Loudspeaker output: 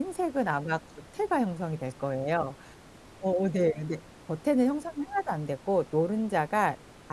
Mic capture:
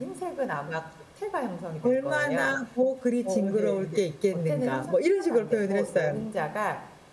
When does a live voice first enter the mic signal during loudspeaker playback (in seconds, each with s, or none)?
1.8 s